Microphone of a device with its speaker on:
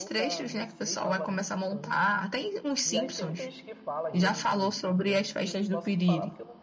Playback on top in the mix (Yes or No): Yes